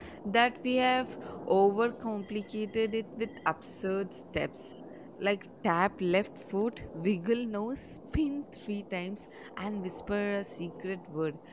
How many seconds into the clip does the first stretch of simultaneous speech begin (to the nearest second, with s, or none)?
none